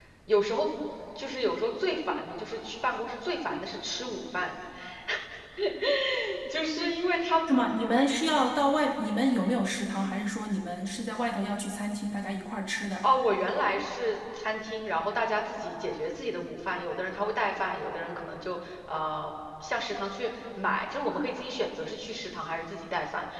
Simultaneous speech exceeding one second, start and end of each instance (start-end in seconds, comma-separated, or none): none